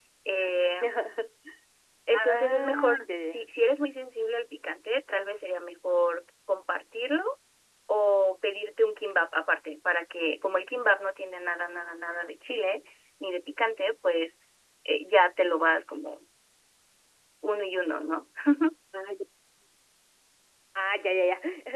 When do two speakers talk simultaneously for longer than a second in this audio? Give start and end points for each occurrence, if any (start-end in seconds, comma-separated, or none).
2.1-3.4